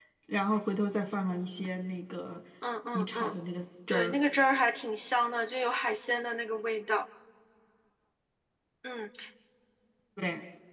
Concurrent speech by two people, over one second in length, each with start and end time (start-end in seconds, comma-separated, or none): none